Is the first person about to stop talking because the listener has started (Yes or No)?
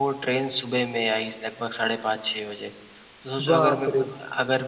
No